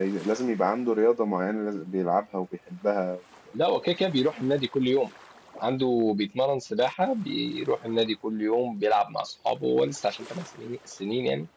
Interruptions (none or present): none